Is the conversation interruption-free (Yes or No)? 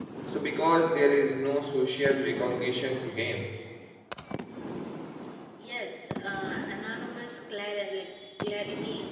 Yes